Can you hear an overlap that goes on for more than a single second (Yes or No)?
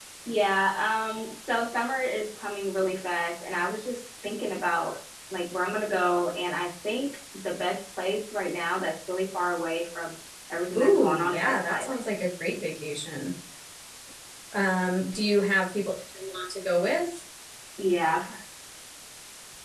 Yes